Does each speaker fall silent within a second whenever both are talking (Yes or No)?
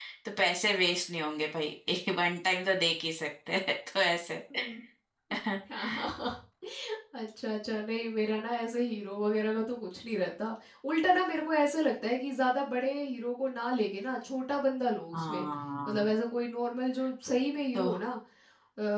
Yes